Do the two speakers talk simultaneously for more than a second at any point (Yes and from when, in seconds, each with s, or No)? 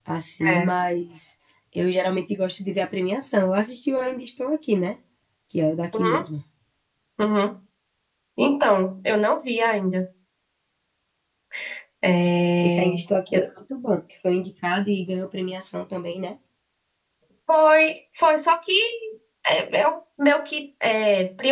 No